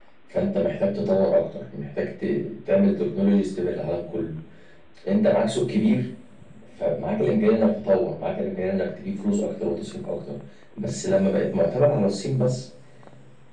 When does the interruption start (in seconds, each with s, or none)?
none